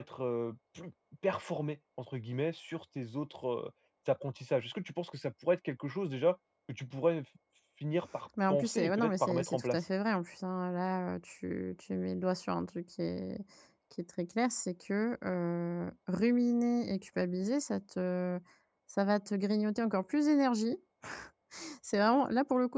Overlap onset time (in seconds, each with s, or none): 8.5 s